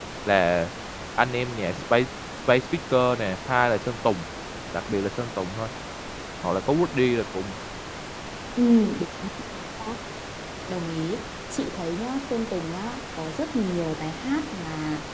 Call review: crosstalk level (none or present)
none